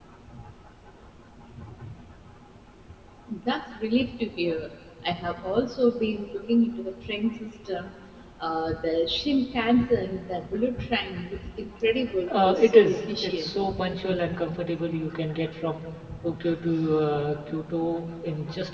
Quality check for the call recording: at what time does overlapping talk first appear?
12.3 s

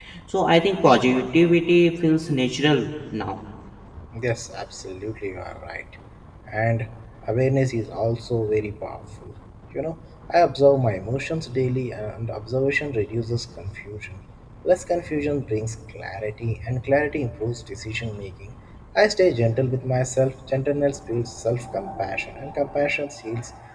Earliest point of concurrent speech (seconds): none

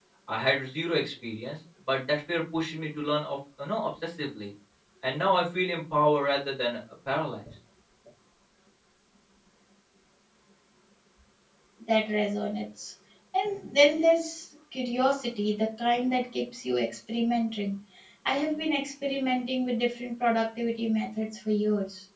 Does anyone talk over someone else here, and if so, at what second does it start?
none

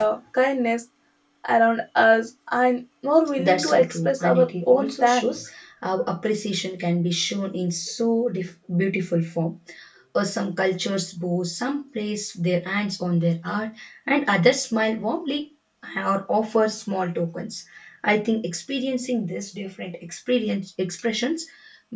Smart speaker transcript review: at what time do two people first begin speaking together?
3.4 s

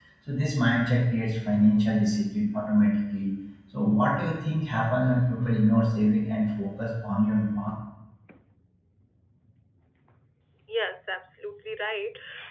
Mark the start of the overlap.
none

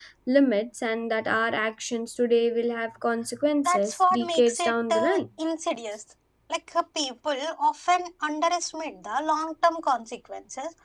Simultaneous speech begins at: 3.6 s

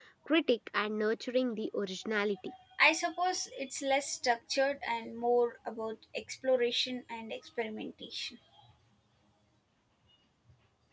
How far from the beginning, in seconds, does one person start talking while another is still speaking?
none

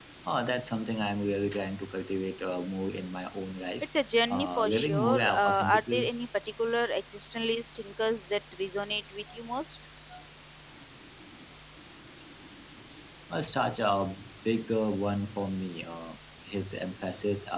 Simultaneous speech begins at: 4.3 s

